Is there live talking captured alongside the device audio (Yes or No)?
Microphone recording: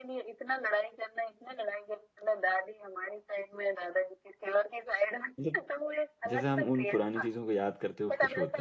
Yes